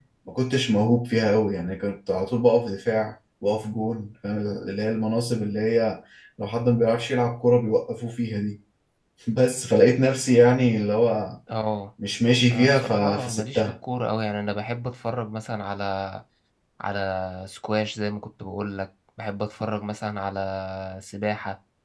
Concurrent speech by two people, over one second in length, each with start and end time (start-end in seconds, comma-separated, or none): 12.5-13.7